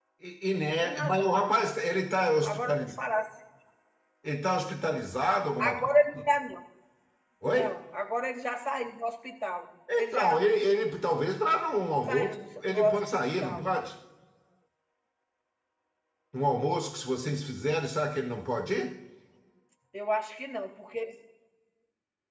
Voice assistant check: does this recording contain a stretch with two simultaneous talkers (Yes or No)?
Yes